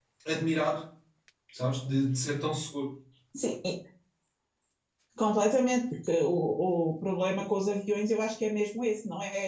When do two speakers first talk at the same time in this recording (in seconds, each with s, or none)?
none